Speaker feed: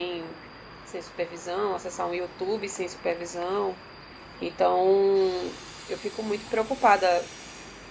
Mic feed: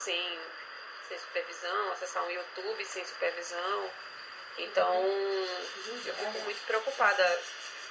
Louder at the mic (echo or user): echo